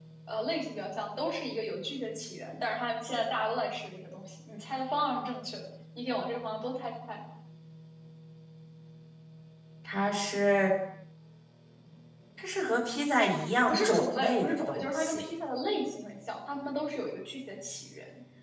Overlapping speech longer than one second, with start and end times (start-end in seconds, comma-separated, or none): 13.7-15.2